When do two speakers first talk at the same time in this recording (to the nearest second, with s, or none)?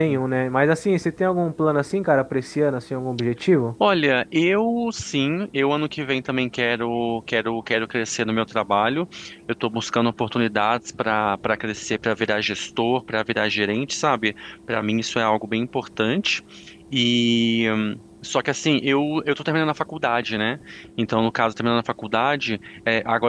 none